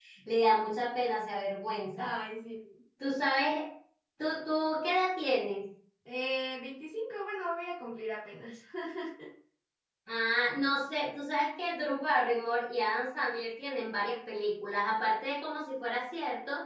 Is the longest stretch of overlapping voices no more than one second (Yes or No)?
Yes